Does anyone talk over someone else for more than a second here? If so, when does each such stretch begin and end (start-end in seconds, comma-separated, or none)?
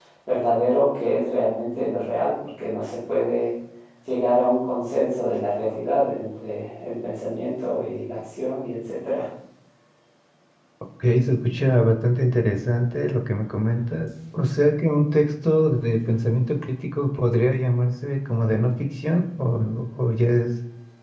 none